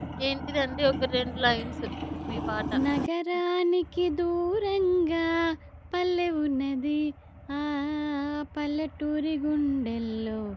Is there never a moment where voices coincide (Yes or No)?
Yes